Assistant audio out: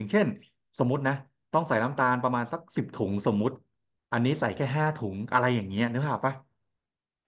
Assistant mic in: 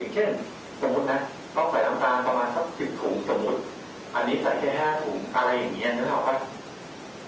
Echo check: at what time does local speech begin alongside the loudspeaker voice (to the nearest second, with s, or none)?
none